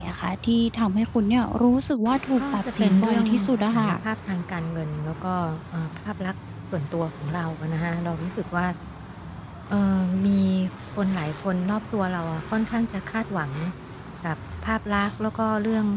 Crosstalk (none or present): present